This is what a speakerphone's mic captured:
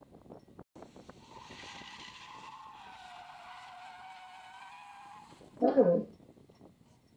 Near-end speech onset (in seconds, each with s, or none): 5.6 s